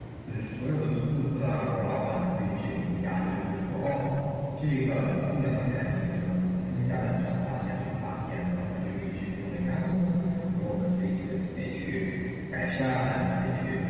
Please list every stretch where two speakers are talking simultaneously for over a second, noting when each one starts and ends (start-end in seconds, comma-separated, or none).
none